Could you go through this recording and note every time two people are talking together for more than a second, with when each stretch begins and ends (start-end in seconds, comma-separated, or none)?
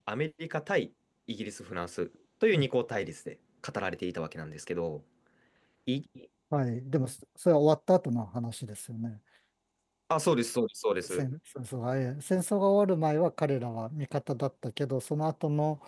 none